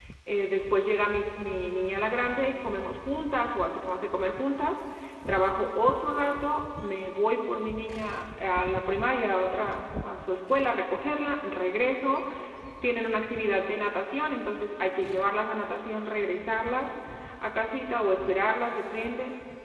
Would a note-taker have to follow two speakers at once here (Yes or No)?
No